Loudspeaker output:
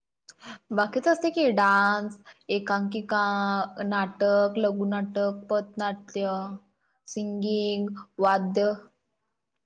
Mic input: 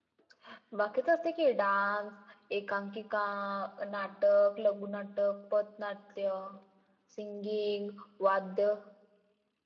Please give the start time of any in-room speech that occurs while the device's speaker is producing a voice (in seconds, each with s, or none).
none